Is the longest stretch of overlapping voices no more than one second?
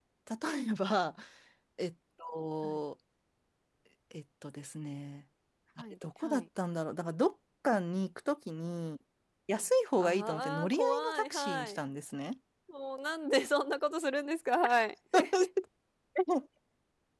No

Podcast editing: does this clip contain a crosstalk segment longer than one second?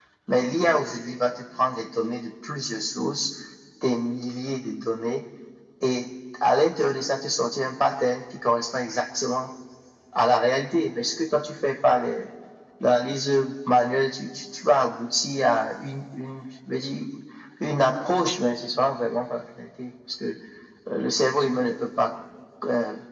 No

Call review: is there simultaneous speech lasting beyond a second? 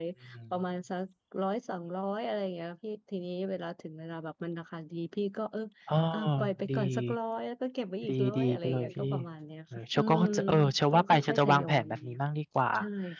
Yes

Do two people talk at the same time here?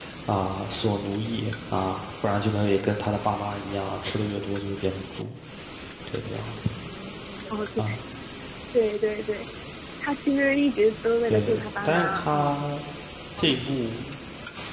Yes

